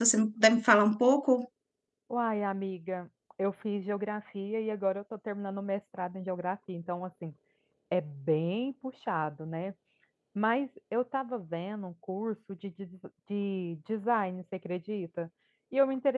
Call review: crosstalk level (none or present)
none